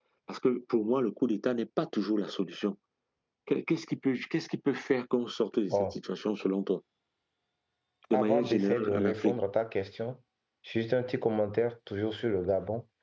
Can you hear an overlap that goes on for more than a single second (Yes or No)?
Yes